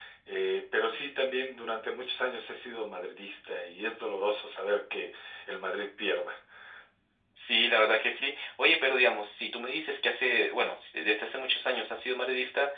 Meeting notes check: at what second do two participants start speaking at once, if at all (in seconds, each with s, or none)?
none